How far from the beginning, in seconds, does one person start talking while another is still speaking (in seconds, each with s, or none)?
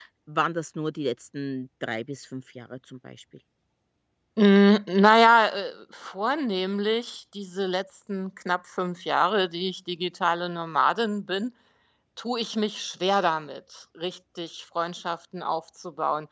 none